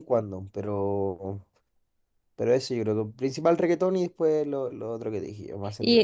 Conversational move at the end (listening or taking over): taking over